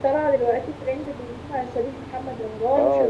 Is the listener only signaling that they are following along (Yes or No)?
No